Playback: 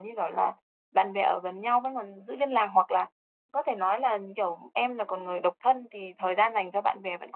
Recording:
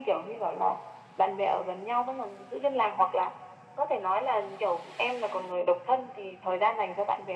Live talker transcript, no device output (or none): none